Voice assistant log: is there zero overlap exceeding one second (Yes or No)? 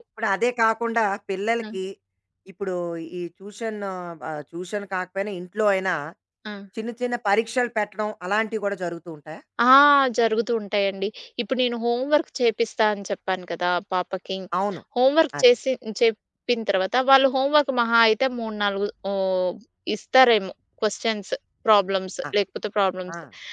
Yes